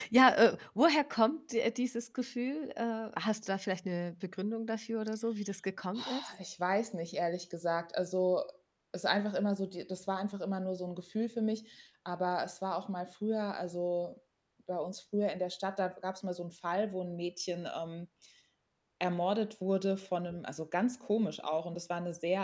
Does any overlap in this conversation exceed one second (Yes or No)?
No